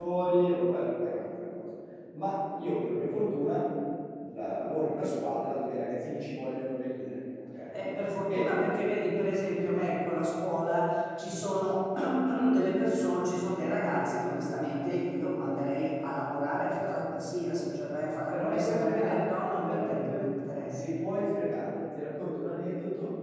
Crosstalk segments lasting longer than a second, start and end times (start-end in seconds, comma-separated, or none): 18.3-20.2